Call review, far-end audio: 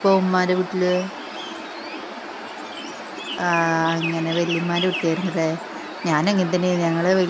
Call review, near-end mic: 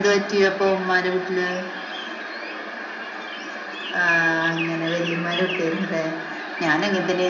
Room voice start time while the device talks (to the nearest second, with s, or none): none